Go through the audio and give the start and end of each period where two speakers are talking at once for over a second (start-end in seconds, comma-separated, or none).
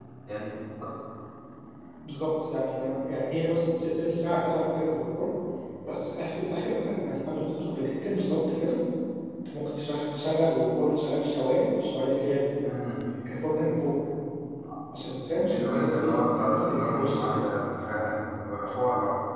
15.5-17.4